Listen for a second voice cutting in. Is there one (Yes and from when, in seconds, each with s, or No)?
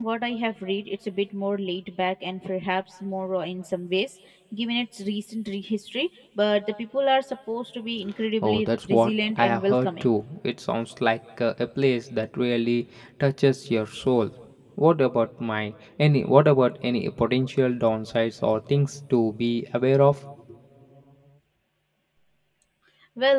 Yes, from 8.4 s